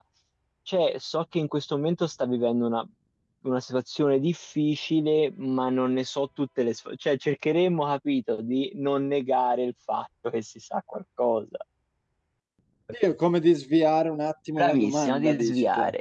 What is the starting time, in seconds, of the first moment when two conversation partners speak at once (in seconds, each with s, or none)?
14.6 s